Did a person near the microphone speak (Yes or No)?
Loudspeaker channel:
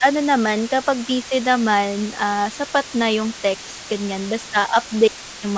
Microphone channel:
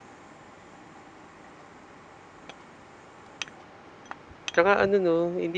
Yes